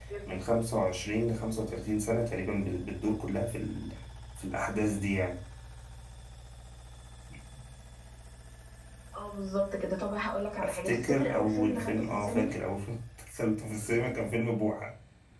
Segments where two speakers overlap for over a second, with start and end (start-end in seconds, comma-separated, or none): 10.6-12.5